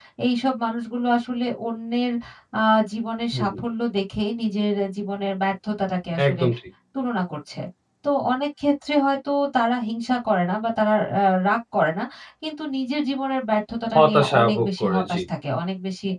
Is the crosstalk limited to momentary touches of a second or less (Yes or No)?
No